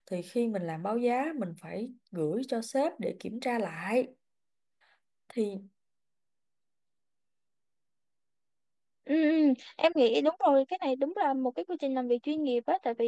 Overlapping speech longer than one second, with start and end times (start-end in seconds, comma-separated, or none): none